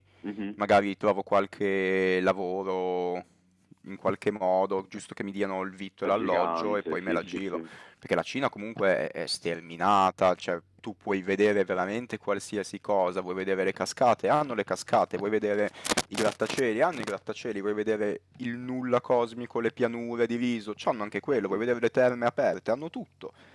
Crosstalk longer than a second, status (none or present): present